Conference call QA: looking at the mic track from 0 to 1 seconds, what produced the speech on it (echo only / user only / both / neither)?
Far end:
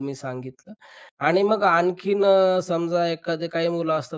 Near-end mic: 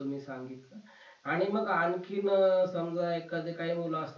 echo only